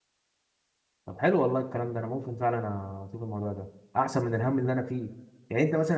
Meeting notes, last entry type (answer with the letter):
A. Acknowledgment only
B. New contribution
A